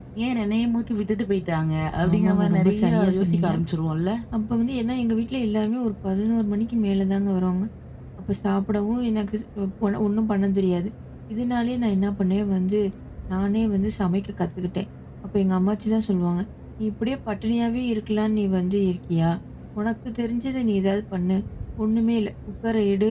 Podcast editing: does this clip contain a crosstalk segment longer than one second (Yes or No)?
Yes